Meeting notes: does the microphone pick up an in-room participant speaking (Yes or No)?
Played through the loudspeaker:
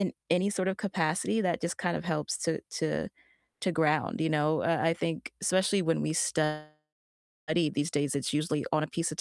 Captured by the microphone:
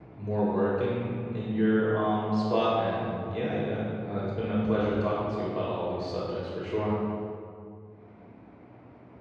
Yes